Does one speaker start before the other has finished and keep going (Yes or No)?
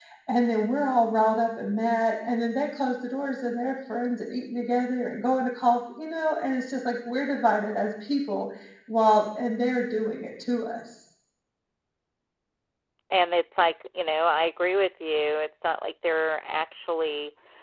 No